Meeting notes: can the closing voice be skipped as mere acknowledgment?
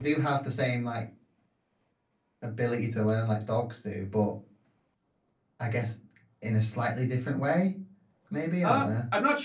No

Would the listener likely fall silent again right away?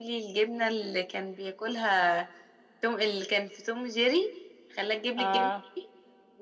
Yes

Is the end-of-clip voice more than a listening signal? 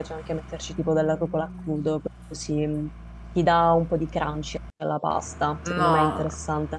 Yes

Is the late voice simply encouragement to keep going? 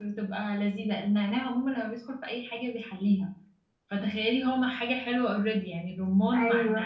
No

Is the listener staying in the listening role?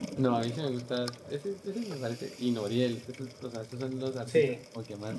Yes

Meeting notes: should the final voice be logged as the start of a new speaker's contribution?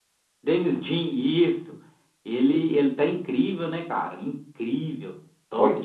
Yes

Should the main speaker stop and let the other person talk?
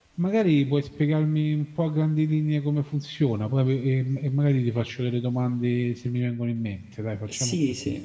Yes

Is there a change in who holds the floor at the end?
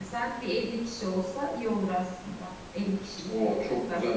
Yes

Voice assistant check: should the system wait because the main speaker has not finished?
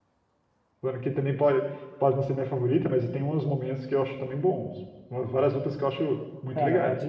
No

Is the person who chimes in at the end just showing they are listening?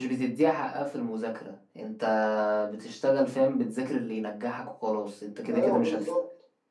No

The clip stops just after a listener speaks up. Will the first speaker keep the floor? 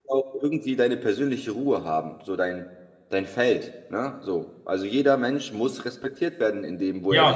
No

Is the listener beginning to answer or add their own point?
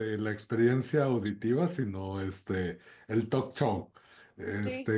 No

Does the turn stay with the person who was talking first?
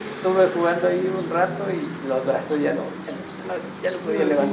No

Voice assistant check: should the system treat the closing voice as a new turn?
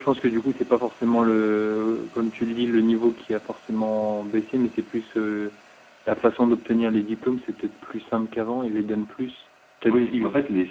Yes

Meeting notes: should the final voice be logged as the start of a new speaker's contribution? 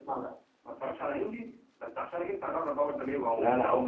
Yes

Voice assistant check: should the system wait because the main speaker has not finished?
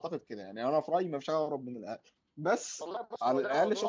No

